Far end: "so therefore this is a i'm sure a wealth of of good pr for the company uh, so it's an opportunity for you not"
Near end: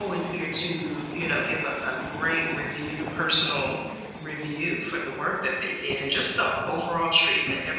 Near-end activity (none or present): present